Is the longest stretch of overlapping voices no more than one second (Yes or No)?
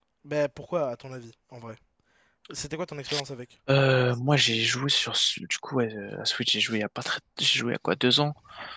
Yes